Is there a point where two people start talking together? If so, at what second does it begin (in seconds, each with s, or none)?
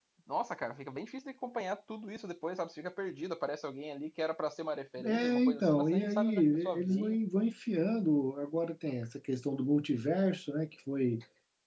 5.0 s